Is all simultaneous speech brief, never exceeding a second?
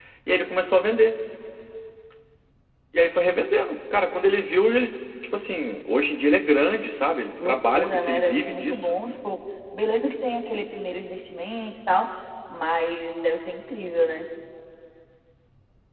No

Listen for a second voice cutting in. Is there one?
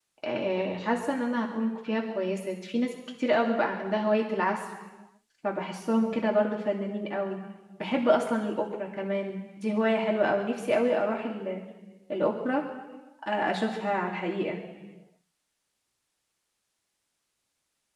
No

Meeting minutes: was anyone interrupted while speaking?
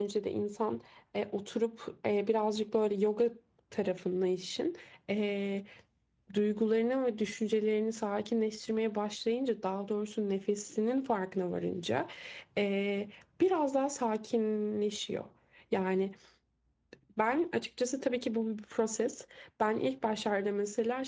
No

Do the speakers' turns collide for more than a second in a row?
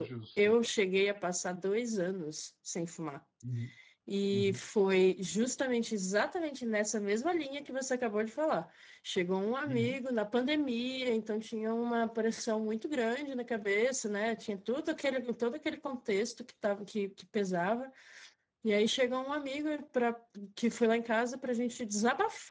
No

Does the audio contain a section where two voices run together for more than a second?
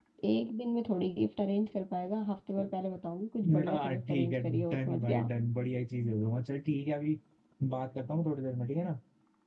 Yes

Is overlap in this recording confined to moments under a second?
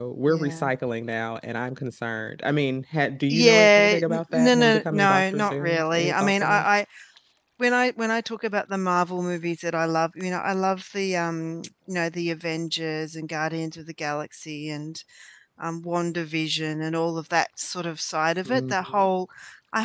No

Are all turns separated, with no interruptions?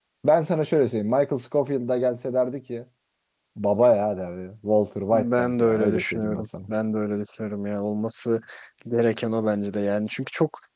No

